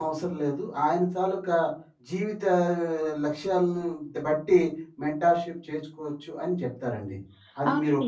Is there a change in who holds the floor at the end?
Yes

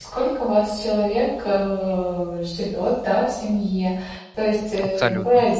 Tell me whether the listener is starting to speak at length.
No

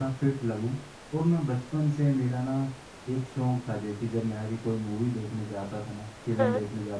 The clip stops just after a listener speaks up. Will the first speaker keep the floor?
Yes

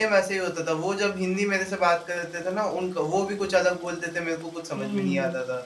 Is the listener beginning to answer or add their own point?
Yes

